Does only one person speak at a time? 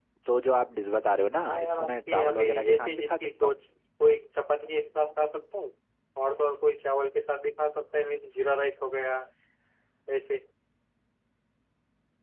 No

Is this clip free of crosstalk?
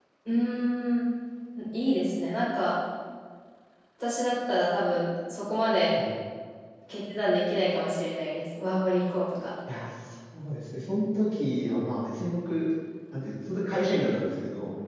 Yes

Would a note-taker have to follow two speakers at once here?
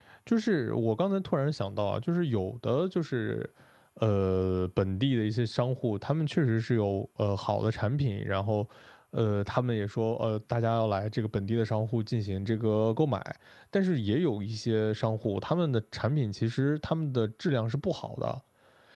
No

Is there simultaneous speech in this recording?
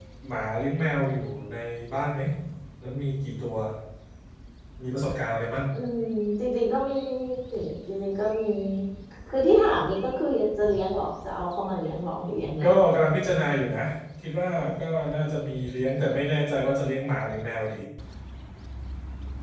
No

